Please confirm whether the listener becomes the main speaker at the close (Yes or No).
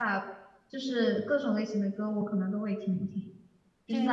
No